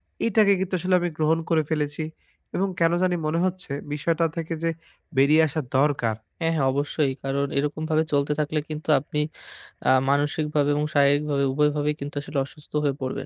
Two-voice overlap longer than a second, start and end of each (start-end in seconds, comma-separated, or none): none